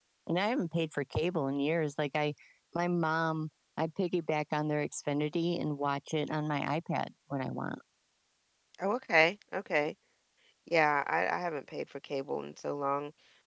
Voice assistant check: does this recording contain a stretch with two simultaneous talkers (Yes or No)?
No